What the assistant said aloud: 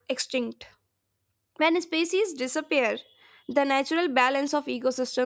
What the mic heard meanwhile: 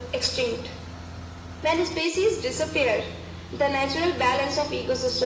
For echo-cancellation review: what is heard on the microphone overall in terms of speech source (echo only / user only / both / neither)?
echo only